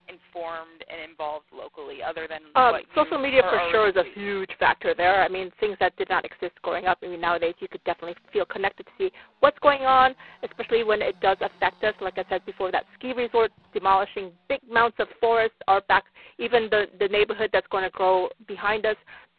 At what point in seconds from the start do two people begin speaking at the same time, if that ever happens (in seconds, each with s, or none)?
2.6 s